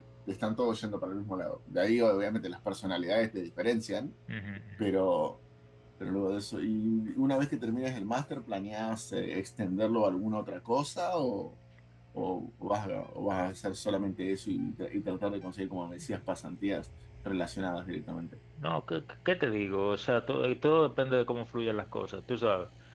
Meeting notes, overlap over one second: none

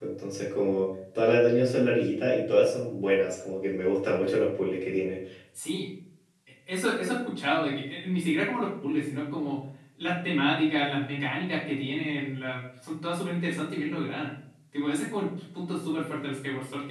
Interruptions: none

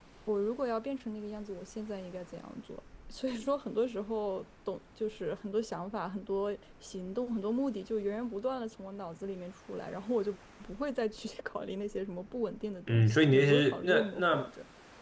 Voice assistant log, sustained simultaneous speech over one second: present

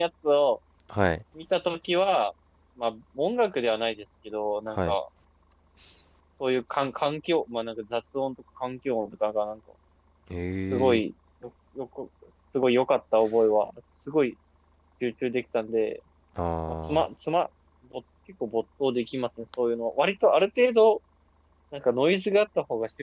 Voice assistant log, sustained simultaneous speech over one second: none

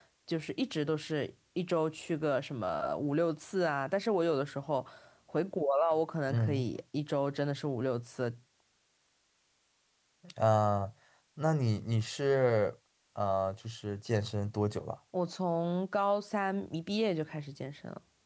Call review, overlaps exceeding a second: none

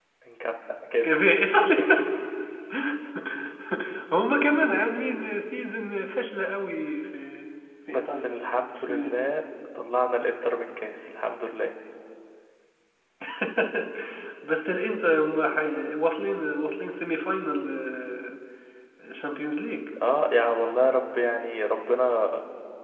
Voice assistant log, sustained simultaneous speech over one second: none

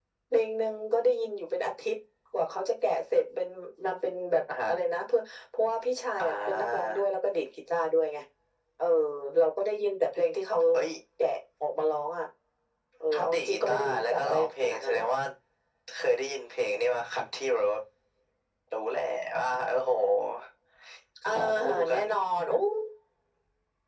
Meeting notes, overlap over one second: present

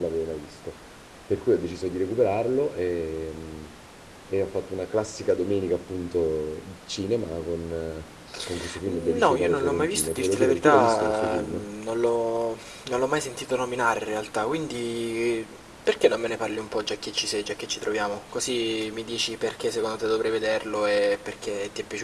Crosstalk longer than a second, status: present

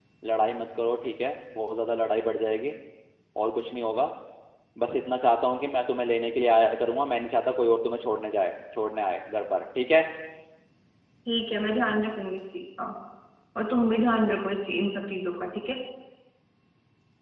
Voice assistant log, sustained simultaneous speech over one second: none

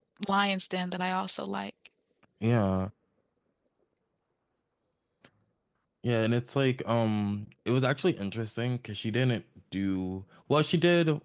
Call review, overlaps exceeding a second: none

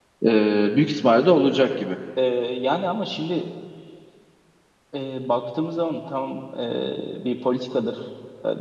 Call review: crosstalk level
none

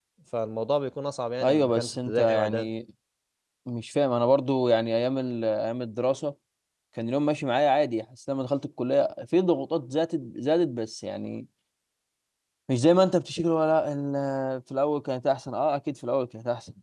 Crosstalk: present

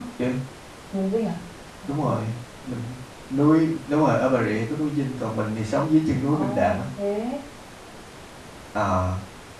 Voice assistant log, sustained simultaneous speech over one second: none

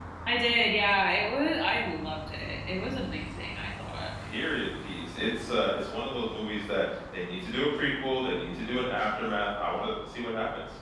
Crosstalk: none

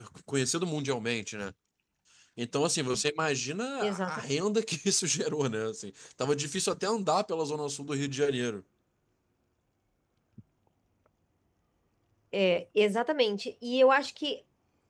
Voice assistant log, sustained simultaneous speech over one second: none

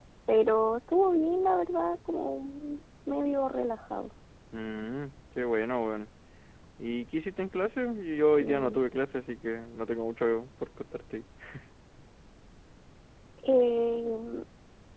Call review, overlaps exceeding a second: none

